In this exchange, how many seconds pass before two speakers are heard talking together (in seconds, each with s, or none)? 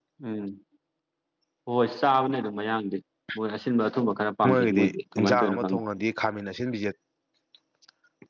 4.4 s